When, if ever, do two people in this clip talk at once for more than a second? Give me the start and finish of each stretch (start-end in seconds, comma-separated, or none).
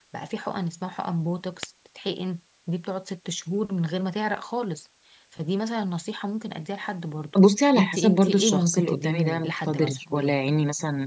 7.8-10.4